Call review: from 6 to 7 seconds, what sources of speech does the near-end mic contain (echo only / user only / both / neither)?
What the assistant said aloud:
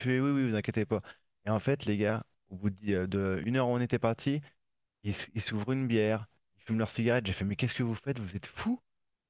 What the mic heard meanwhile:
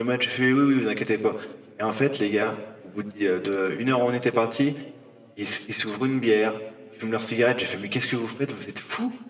echo only